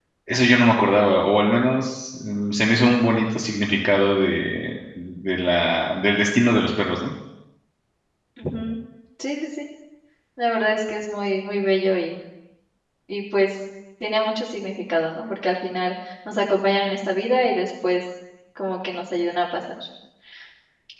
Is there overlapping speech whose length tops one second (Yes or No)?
No